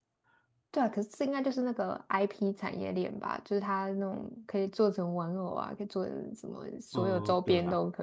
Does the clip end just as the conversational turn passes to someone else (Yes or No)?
Yes